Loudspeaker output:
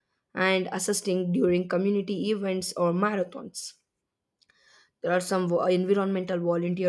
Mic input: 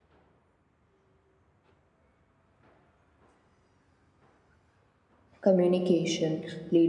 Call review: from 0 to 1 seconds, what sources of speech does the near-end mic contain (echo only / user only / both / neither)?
neither